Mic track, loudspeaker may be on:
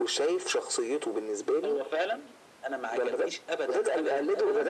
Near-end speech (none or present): none